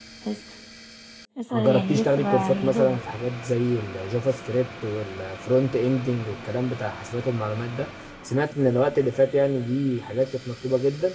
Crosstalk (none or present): present